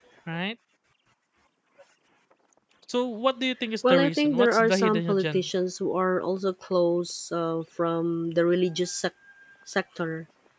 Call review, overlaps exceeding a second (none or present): present